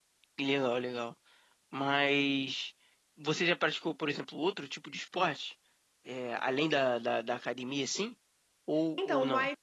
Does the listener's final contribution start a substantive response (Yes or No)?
Yes